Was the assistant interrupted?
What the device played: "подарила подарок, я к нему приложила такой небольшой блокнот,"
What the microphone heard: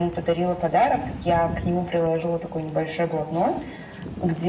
No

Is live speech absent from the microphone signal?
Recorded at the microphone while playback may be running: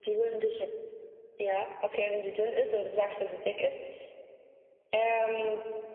Yes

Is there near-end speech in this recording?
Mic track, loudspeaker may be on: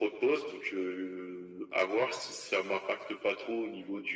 No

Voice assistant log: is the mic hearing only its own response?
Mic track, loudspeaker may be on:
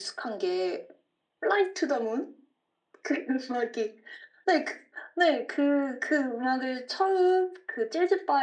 Yes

